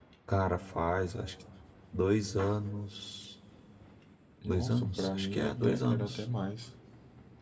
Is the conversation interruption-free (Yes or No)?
No